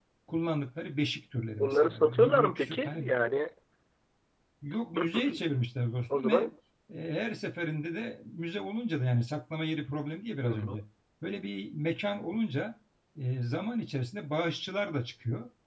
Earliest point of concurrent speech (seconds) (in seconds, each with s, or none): 1.6 s